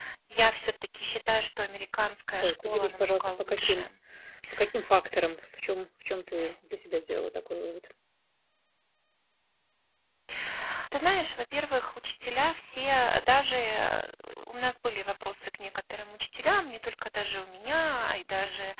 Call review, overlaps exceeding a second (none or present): present